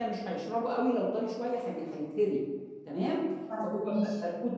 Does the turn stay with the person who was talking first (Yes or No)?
Yes